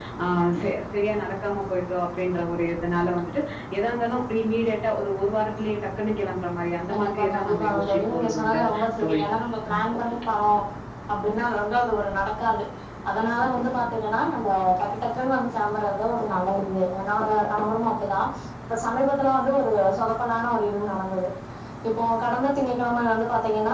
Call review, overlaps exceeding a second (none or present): present